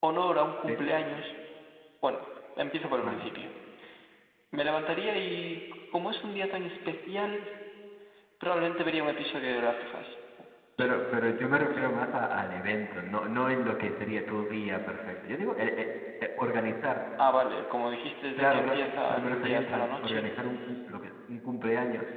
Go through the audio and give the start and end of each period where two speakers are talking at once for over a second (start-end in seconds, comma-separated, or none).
18.4-20.2